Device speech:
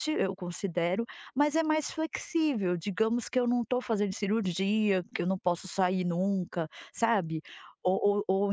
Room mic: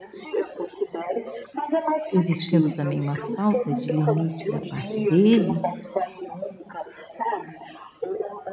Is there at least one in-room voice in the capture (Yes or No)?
Yes